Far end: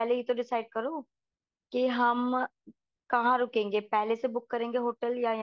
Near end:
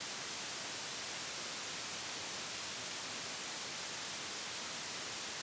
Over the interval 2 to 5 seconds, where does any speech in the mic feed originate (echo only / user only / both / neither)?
neither